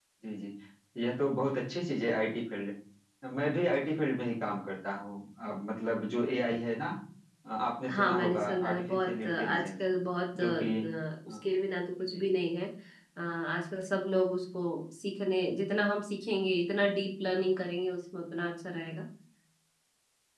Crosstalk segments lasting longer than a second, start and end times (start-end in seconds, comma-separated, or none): 7.9-9.7